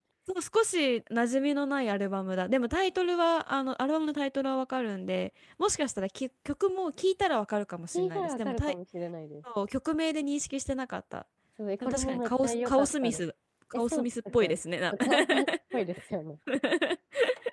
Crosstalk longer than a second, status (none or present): present